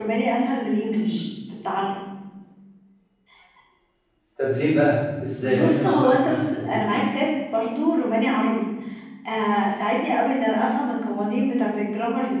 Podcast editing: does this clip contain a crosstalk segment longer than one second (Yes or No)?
Yes